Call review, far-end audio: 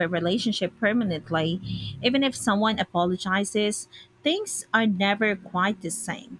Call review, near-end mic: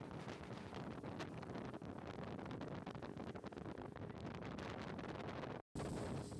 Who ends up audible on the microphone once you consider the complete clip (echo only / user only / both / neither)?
neither